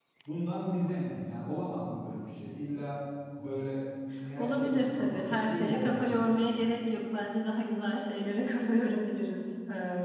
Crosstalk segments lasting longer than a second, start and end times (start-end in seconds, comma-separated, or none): 4.4-6.2